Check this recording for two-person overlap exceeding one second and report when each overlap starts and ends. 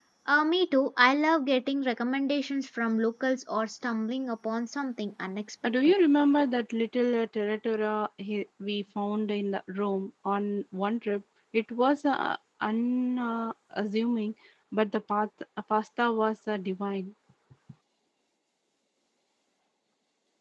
none

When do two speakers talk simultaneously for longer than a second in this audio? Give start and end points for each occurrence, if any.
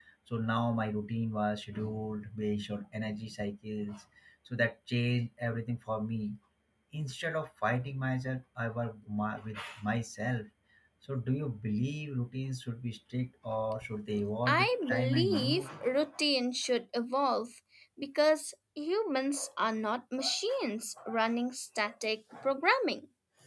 14.5-15.7

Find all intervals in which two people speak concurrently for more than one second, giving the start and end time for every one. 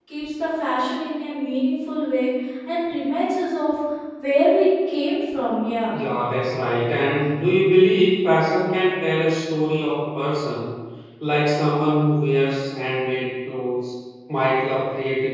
none

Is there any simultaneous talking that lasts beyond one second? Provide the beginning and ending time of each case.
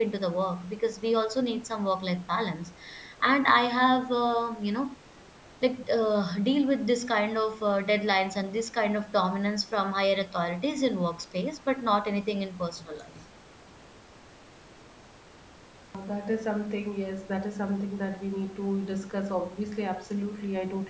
none

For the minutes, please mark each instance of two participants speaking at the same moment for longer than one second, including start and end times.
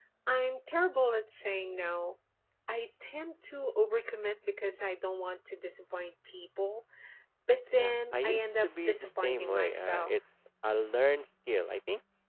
7.8-10.1

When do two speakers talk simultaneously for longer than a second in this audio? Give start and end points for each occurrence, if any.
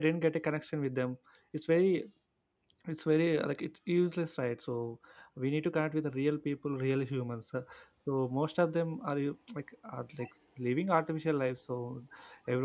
none

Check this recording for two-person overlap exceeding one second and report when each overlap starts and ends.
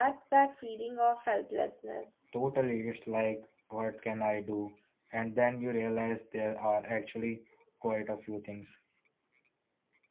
none

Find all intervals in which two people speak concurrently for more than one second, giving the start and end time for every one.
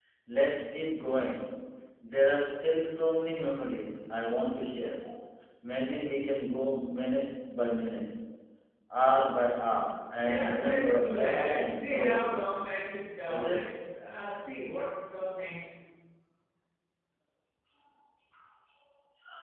10.2-12.3

